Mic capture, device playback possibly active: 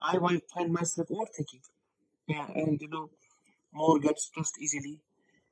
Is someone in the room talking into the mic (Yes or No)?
No